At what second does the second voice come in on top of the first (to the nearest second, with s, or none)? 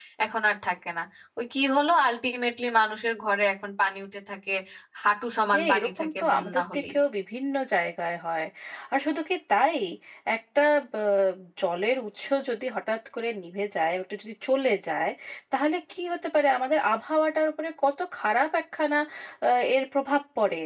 6 s